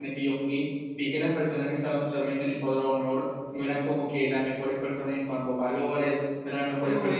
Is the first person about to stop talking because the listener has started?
No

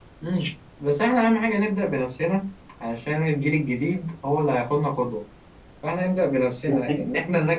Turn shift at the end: No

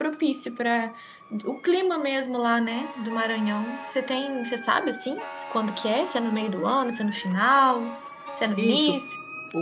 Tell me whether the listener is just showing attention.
No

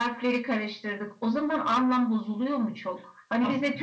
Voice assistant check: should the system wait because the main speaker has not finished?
Yes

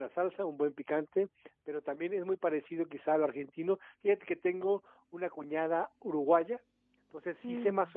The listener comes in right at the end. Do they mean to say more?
No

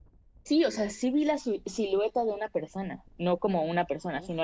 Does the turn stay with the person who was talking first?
Yes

